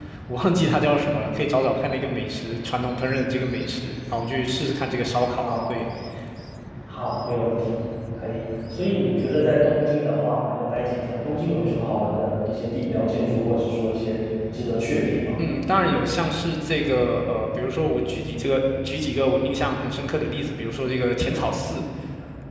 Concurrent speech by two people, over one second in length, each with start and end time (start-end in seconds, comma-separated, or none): none